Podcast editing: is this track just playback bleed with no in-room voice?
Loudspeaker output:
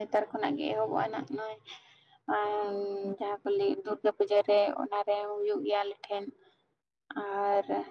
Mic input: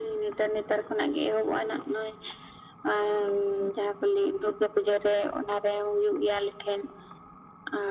Yes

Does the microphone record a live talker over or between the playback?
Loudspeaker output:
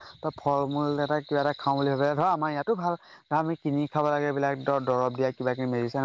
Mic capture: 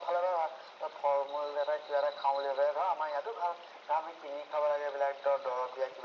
No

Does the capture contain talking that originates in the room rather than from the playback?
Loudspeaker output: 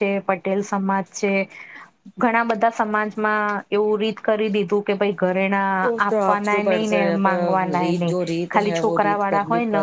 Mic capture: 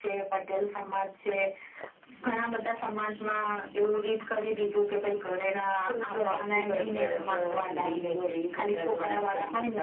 No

